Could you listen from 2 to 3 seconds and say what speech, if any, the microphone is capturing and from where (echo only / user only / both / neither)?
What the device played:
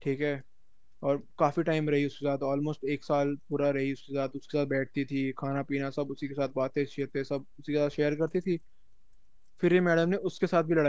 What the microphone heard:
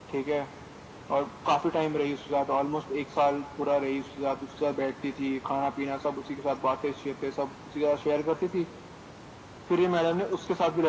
echo only